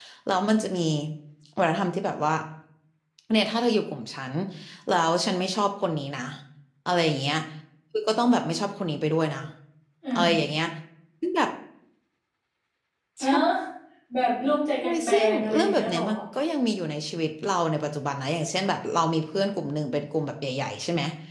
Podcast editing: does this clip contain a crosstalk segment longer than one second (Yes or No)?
Yes